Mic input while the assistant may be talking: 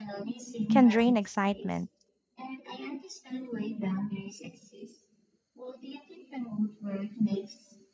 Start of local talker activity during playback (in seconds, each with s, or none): 0.7 s